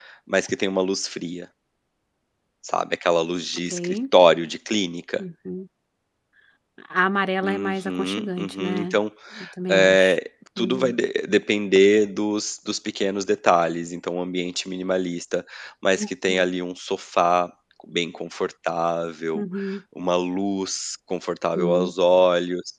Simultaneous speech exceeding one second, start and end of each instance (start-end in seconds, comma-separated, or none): 7.4-9.0